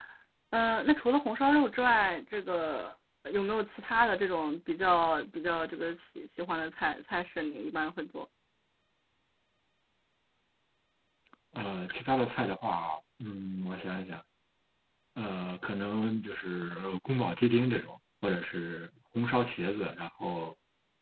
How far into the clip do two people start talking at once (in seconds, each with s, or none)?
none